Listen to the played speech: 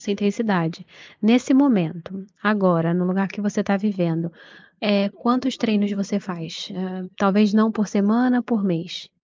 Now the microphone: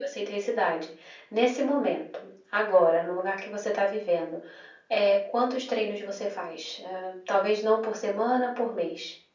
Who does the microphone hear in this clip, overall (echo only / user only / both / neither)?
echo only